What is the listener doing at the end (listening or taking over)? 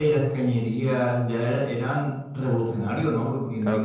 taking over